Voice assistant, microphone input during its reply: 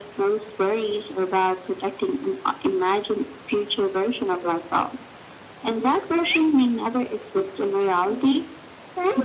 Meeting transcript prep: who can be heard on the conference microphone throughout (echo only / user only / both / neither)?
echo only